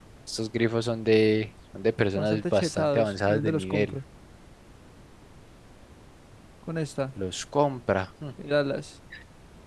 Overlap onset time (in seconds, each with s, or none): 2.1 s